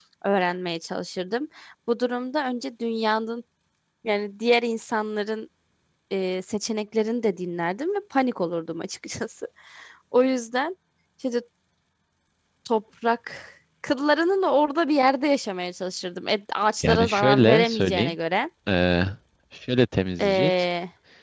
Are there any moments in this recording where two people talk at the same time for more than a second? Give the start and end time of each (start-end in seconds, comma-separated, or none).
16.8-18.1